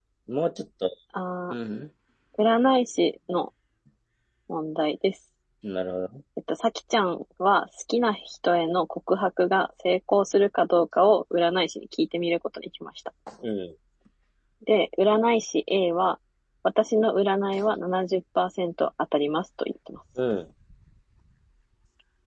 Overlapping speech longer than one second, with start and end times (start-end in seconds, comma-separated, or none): none